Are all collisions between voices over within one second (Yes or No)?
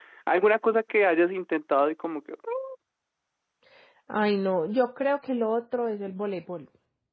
Yes